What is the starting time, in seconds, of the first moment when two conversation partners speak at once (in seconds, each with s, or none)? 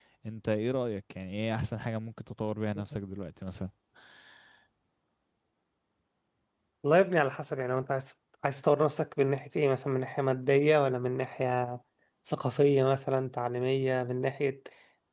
none